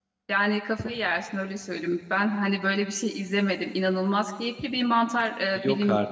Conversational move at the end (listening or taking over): listening